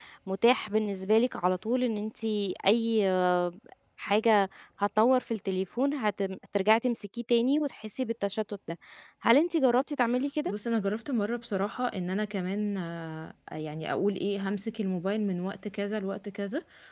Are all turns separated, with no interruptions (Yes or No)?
Yes